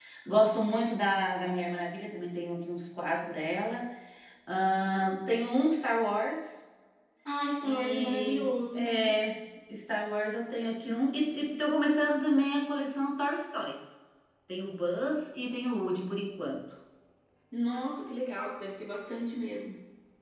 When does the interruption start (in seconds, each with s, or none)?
7.6 s